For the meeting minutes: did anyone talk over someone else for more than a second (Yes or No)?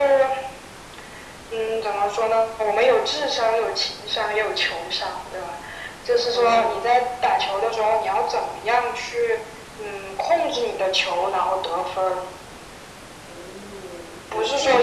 No